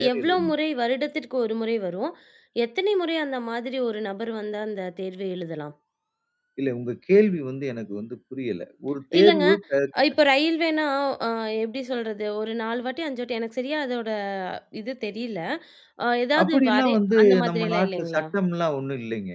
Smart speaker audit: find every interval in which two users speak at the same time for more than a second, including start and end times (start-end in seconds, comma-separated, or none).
16.4-18.2